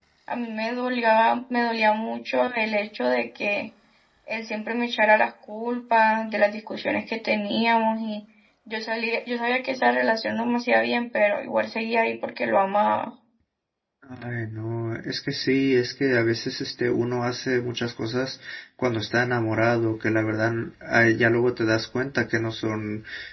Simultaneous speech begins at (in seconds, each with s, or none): none